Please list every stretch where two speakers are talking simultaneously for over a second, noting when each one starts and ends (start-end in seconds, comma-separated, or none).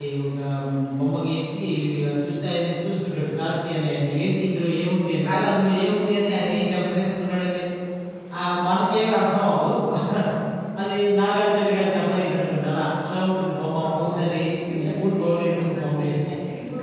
14.7-16.1